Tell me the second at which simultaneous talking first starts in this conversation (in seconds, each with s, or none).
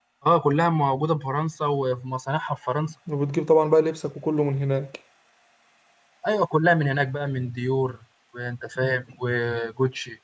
none